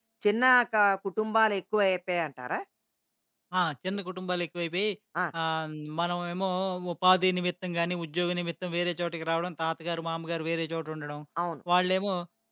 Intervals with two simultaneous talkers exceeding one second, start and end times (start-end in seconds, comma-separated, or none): none